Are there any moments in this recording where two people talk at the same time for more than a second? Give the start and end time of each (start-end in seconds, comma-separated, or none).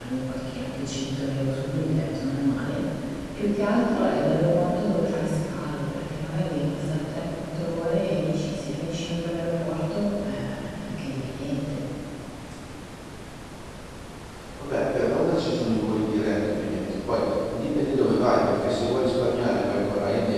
none